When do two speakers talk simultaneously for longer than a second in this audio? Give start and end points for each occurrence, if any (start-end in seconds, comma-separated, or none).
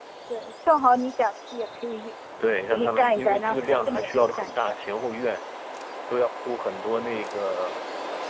2.6-4.8